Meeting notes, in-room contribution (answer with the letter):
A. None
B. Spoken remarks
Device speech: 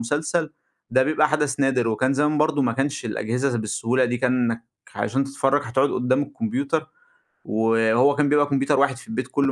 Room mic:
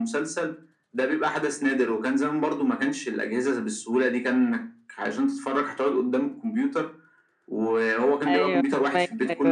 B